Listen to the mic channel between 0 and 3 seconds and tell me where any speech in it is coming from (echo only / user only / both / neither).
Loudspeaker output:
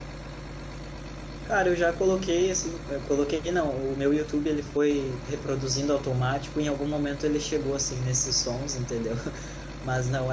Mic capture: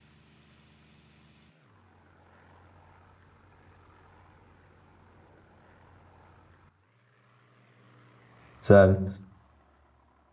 neither